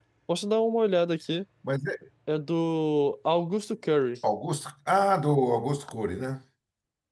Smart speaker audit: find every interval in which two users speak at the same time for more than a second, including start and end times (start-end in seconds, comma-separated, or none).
none